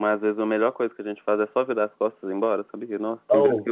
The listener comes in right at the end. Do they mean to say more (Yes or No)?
Yes